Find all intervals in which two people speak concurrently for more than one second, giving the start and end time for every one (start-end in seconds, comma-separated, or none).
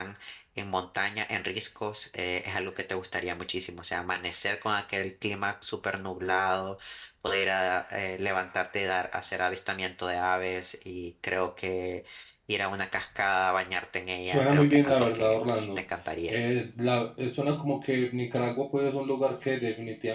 14.2-15.7